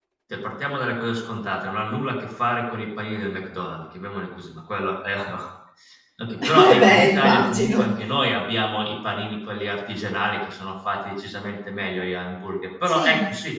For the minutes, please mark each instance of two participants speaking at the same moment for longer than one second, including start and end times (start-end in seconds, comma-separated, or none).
6.6-7.8